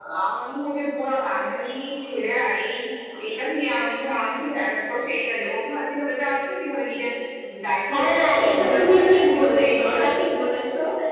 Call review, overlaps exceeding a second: present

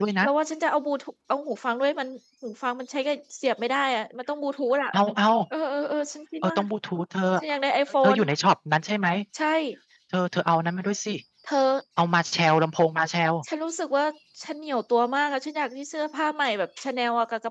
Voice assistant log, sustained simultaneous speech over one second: none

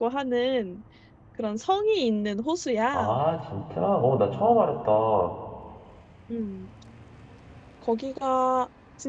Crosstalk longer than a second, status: none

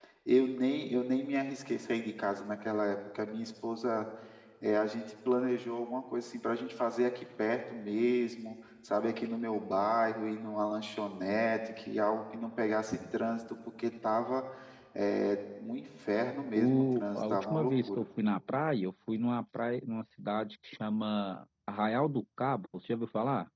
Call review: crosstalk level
present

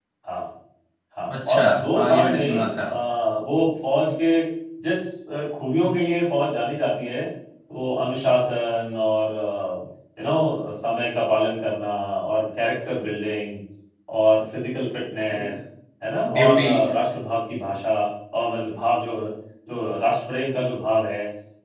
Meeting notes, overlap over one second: present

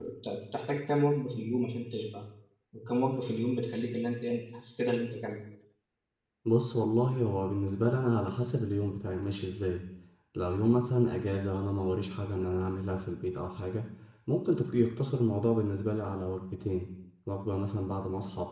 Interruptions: none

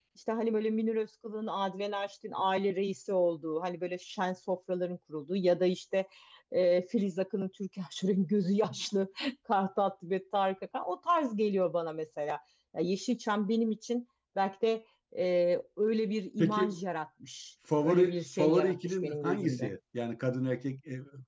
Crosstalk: present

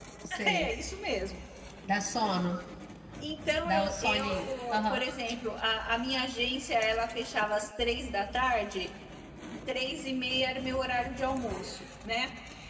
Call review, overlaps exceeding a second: present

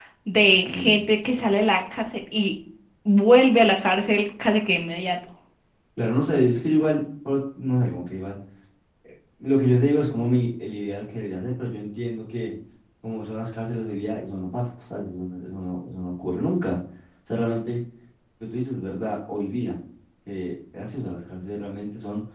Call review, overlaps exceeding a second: none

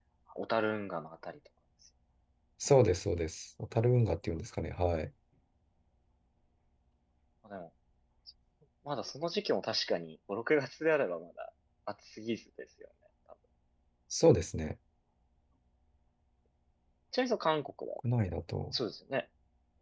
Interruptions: none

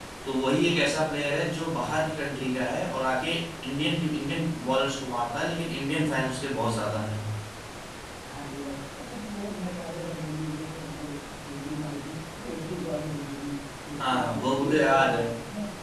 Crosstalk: present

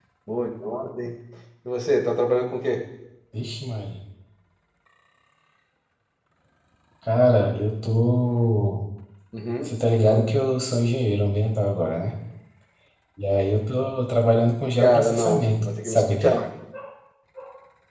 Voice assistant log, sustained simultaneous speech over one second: present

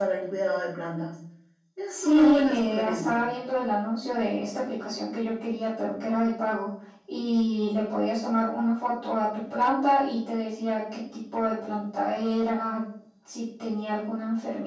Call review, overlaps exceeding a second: present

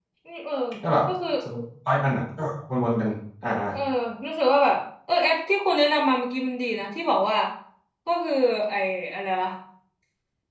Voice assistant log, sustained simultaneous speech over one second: none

